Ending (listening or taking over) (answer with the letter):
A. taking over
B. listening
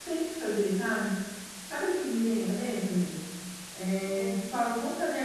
B